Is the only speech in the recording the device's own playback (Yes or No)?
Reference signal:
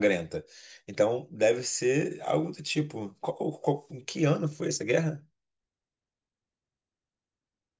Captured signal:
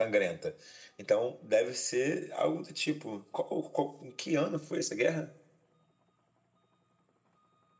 Yes